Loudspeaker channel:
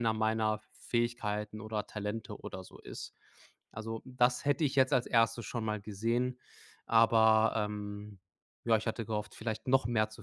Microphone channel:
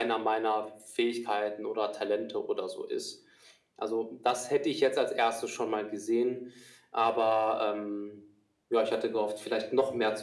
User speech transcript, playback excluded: none

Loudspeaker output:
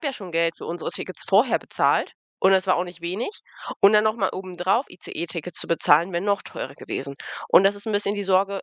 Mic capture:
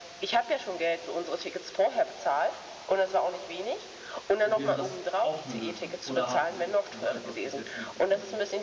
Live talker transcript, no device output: wäre das auch eine Lösung. Oder habt ihr so etwas bis jetzt nicht gefunden?

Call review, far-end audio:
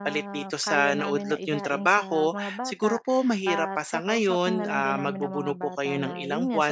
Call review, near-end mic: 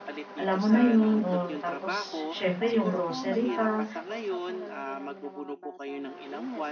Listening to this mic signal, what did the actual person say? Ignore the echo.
alam mo na yun, o tapos siyempre yung grocery pa.

